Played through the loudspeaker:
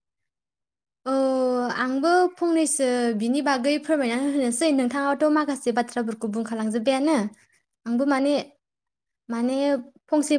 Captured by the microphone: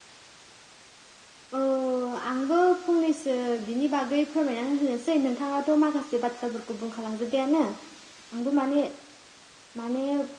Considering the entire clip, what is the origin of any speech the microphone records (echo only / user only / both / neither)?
echo only